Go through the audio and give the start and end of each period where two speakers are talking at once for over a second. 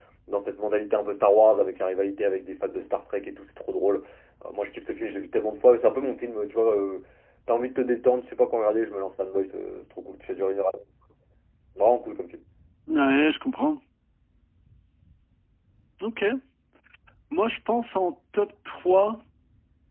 none

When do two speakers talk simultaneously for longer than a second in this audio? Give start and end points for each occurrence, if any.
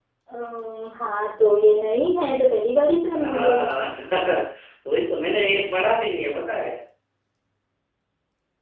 none

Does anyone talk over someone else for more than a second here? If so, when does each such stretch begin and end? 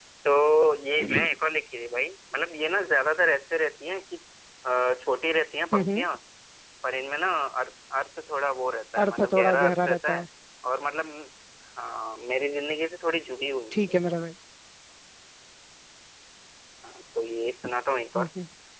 9.0-10.2

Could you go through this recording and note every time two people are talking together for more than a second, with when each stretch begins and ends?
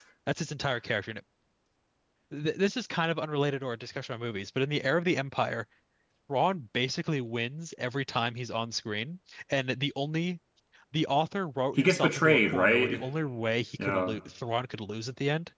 11.8-13.0

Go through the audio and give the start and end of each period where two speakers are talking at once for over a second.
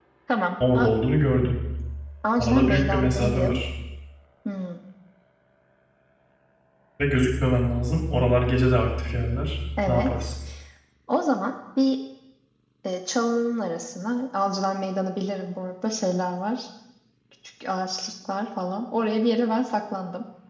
2.4-3.6

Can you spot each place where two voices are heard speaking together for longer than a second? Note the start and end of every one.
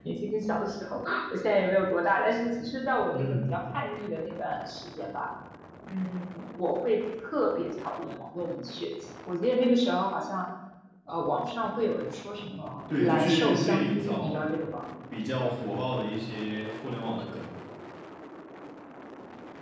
13.0-14.4

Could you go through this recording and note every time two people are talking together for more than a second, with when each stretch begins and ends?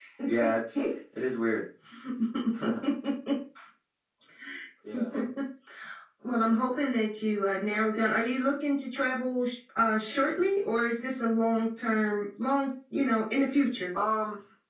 none

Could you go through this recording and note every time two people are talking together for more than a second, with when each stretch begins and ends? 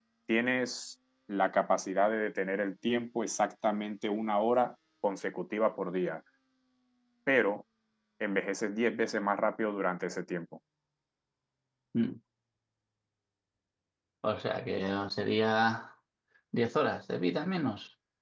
none

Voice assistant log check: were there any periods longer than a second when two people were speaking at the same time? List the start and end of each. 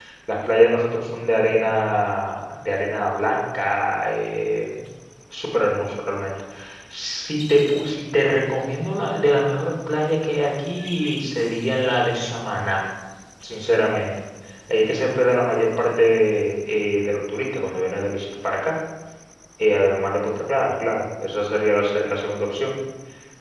none

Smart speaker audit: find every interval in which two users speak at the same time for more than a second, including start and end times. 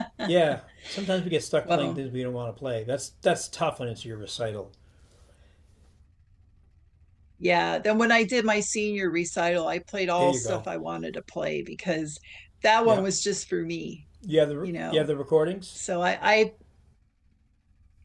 none

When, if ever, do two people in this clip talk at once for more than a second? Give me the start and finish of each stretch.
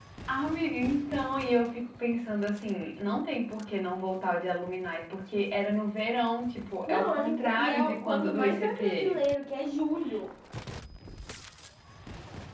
6.9-9.2

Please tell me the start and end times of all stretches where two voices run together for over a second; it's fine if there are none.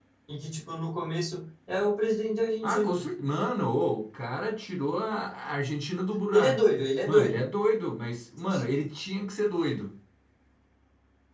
none

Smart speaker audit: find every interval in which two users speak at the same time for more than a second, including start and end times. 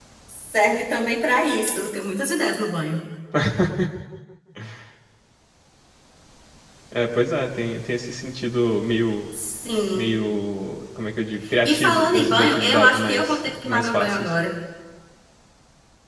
11.6-14.3

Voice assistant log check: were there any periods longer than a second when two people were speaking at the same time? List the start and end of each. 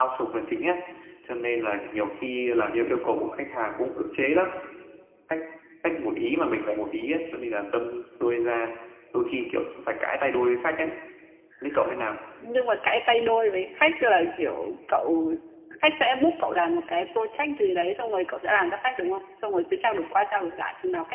none

